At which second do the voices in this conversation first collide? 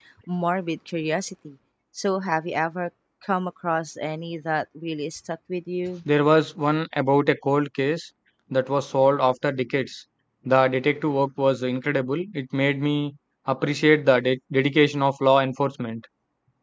none

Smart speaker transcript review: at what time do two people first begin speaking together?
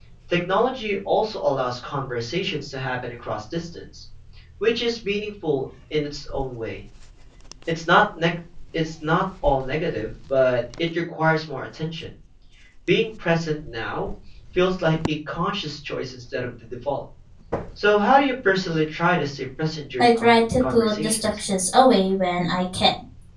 20.0 s

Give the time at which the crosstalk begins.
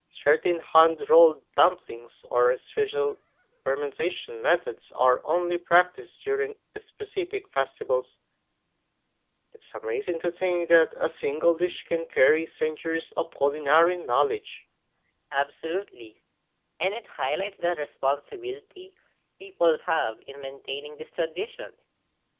none

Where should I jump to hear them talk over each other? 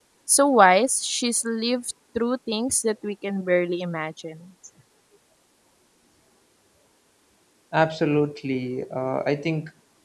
none

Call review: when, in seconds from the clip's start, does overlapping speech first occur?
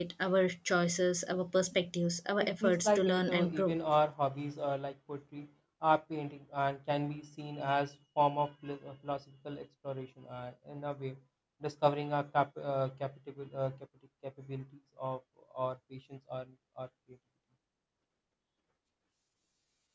2.4 s

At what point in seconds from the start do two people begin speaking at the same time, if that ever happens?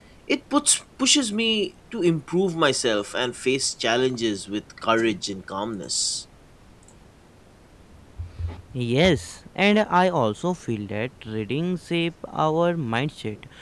none

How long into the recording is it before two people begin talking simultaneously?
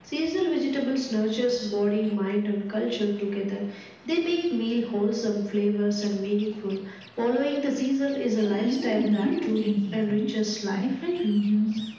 8.4 s

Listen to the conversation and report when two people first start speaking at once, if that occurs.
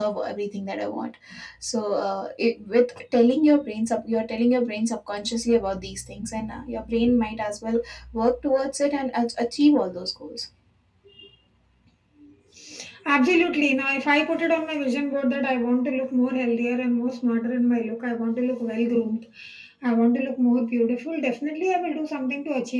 none

